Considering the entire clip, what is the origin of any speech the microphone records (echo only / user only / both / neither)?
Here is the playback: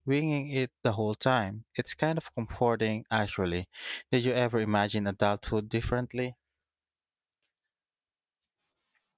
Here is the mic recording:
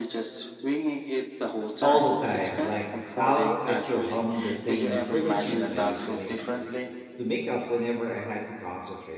both